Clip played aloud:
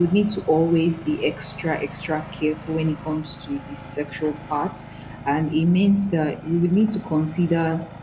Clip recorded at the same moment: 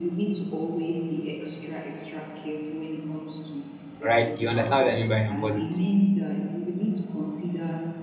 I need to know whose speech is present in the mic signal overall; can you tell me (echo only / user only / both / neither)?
both